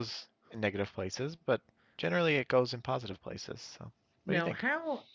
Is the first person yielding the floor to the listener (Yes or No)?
Yes